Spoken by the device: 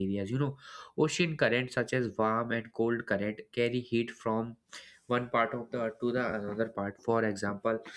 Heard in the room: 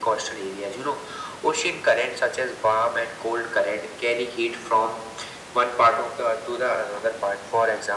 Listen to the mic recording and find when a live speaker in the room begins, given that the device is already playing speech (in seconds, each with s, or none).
none